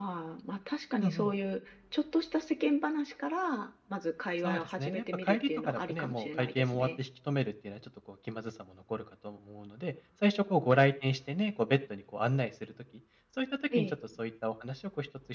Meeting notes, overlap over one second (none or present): present